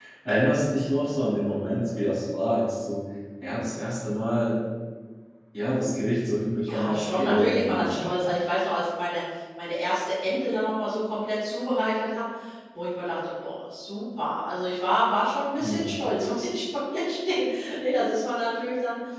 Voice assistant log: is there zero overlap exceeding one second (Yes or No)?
No